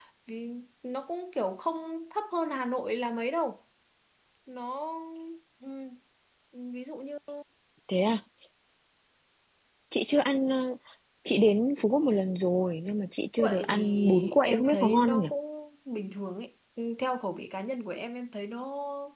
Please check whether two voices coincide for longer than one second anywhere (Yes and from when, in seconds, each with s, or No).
Yes, from 13.4 s